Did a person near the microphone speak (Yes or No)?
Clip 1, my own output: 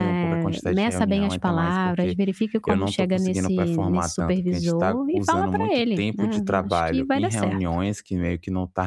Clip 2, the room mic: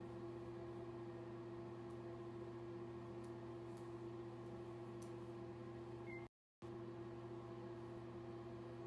No